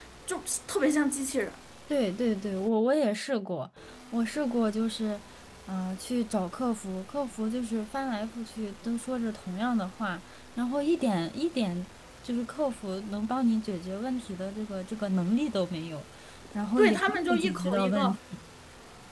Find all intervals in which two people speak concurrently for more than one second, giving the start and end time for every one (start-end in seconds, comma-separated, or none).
16.8-18.1